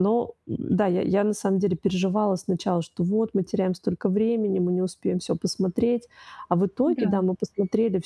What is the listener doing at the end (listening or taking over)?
listening